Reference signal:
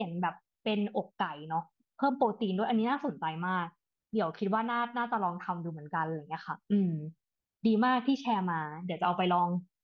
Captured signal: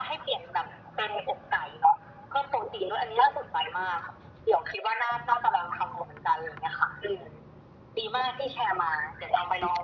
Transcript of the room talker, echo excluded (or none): none